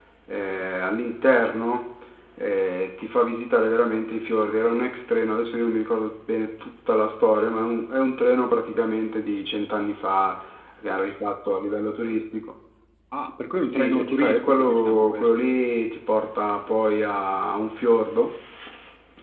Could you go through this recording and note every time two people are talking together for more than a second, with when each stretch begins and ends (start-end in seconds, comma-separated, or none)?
13.7-15.3